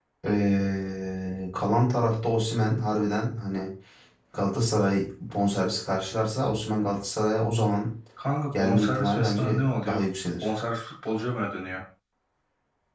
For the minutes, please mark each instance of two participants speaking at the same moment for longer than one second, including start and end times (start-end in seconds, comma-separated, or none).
8.5-10.0